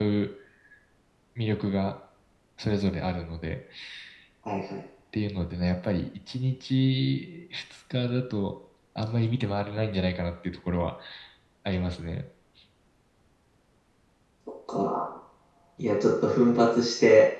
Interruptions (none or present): none